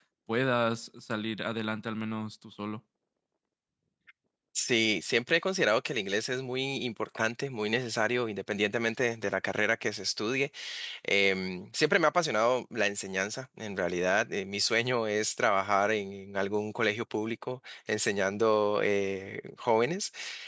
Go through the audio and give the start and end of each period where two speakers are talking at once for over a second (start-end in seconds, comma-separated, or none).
none